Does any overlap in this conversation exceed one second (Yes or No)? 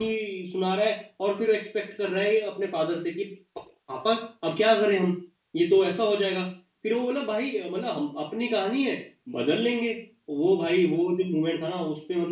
No